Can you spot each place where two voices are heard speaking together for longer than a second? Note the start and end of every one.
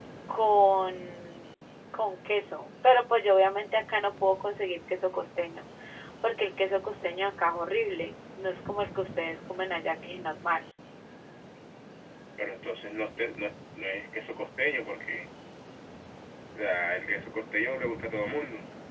none

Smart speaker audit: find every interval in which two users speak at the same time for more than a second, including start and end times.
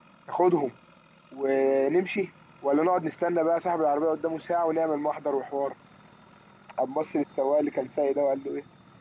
none

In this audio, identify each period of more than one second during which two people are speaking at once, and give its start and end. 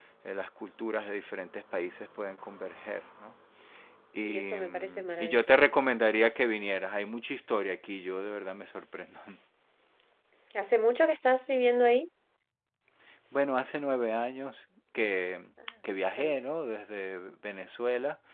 4.2-5.7

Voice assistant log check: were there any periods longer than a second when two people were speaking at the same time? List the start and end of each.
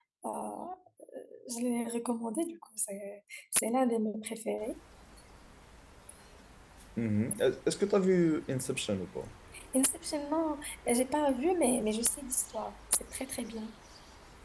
none

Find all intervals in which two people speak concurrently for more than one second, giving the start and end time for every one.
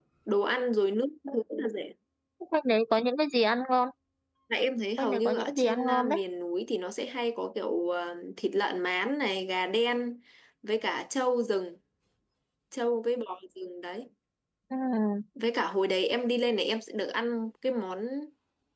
5.0-6.2

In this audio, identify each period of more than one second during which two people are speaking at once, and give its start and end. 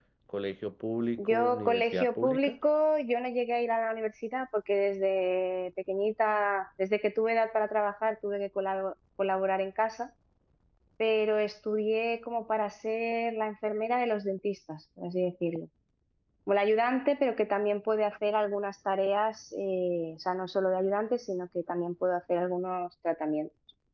1.2-2.6

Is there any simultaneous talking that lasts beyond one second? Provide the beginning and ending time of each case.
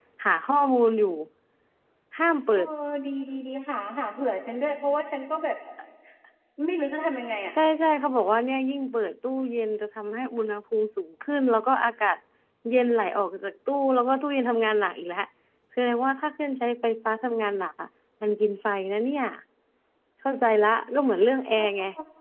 none

